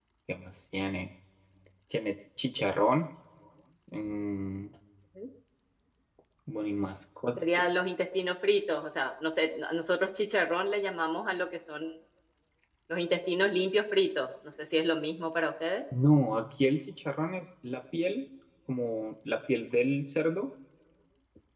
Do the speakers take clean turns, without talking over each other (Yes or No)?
Yes